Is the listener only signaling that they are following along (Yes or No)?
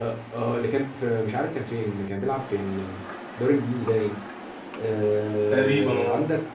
Yes